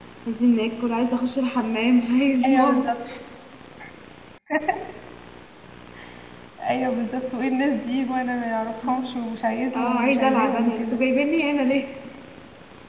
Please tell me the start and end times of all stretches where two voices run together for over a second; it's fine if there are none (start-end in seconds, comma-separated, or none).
9.8-11.0